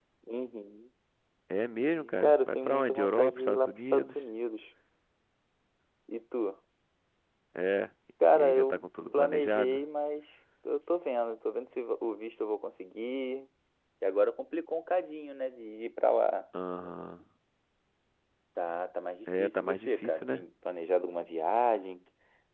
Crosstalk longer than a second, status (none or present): present